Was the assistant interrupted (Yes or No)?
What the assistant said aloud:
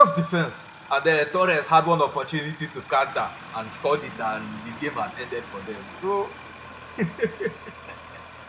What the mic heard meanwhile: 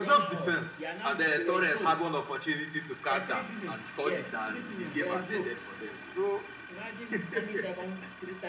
Yes